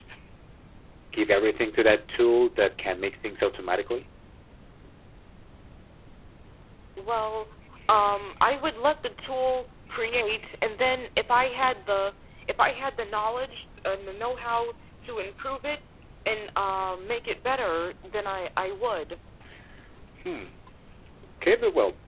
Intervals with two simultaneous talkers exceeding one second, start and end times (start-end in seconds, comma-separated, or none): none